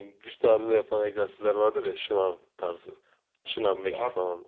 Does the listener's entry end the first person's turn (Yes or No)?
No